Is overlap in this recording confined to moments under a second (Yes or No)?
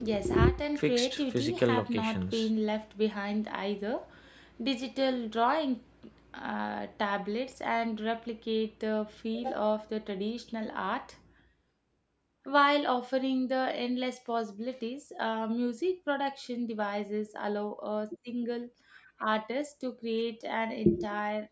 No